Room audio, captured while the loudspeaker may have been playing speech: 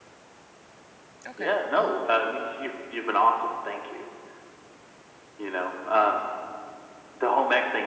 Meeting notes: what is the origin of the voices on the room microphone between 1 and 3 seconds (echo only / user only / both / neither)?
both